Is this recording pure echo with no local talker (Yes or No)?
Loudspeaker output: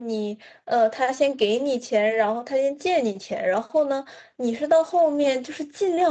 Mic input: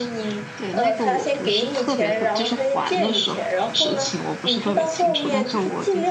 No